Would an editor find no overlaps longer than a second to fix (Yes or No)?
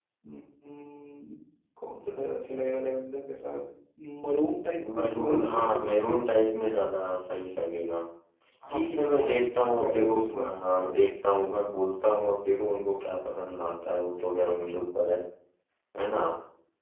No